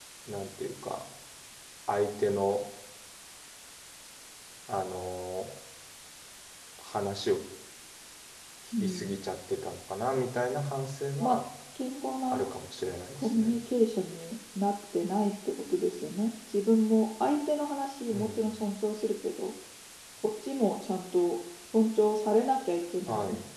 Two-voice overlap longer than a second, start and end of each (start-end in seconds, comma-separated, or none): none